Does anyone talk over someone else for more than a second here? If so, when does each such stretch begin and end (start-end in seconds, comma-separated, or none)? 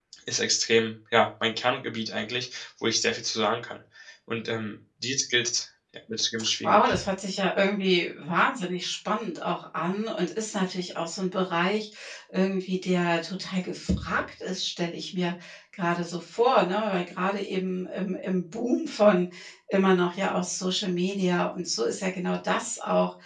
none